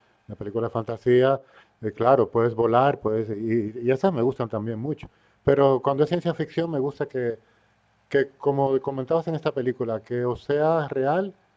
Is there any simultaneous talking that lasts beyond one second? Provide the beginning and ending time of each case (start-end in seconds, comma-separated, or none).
none